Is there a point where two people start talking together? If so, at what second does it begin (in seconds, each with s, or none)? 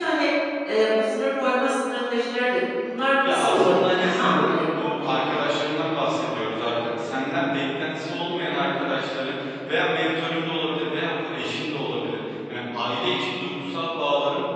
3.2 s